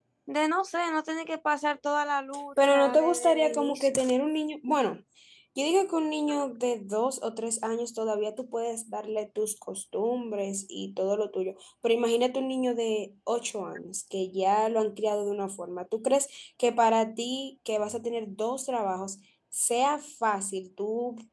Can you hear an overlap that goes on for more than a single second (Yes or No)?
Yes